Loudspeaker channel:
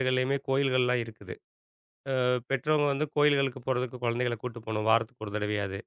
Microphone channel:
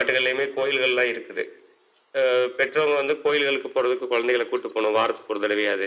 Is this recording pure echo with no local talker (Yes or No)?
Yes